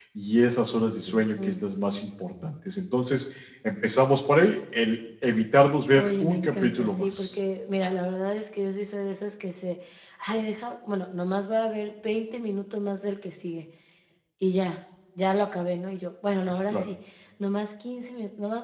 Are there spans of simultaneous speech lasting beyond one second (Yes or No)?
Yes